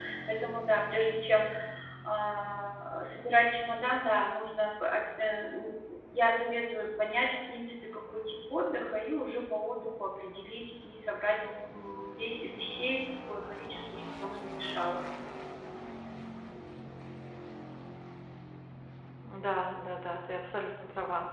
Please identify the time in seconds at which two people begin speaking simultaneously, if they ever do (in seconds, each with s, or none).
none